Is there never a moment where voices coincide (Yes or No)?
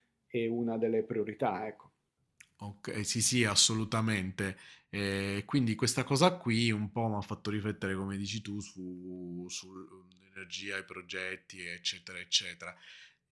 Yes